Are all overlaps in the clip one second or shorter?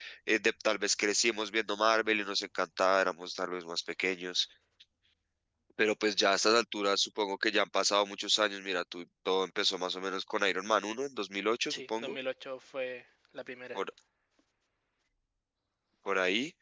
Yes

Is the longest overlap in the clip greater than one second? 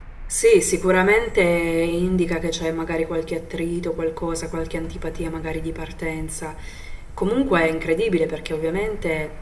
No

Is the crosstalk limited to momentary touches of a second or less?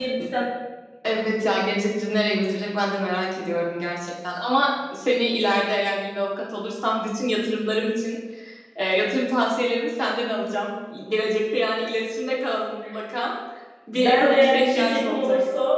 No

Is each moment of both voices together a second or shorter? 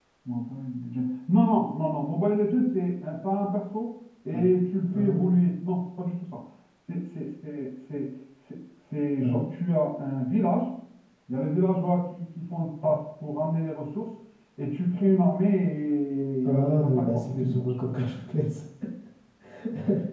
No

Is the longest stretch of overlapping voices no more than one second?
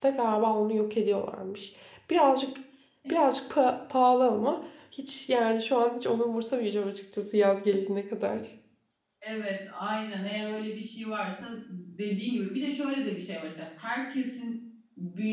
Yes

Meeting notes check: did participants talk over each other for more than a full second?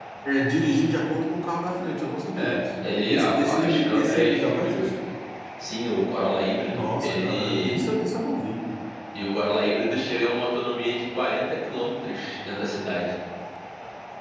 Yes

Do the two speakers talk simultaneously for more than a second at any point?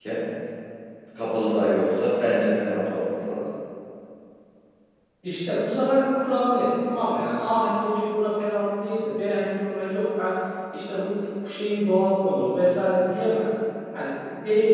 No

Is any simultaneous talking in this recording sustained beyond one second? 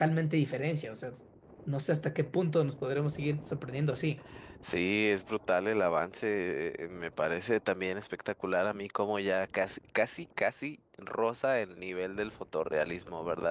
No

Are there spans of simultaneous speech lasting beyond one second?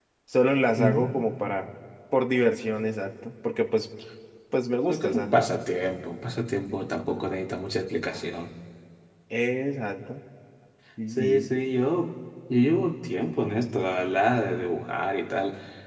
No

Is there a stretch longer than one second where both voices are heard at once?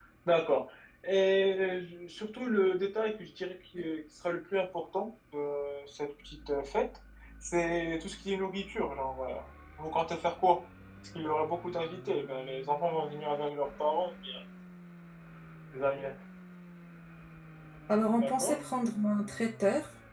No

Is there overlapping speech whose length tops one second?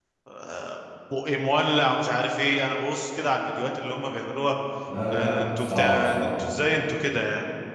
Yes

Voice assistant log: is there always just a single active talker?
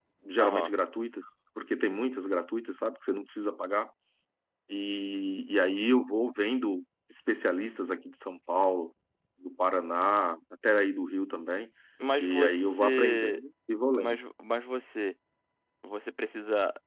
No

